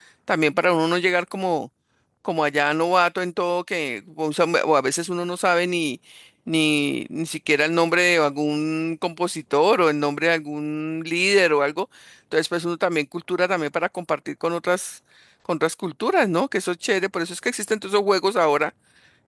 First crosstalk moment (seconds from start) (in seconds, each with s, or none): none